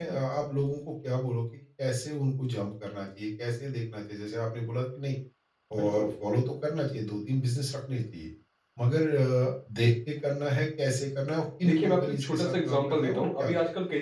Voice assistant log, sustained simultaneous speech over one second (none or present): present